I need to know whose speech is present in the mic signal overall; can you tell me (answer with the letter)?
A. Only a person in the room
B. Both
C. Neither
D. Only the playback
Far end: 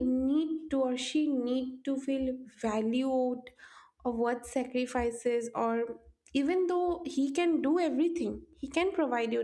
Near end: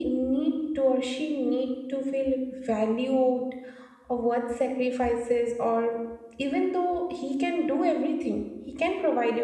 D